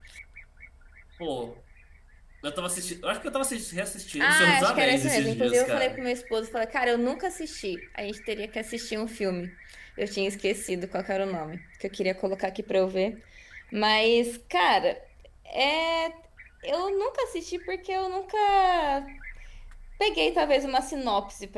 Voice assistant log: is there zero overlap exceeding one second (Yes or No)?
No